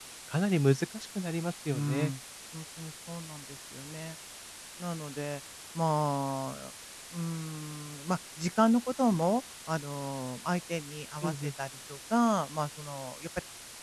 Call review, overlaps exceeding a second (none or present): none